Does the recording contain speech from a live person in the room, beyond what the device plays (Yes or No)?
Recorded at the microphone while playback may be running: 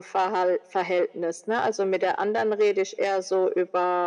No